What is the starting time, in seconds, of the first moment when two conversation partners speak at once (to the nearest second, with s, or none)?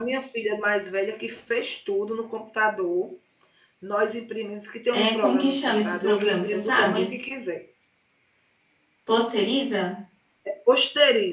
5 s